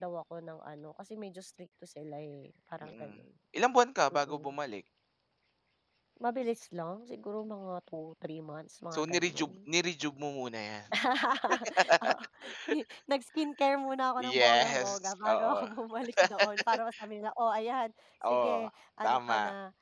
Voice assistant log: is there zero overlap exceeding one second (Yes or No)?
No